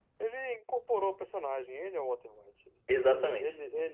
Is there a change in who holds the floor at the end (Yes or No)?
No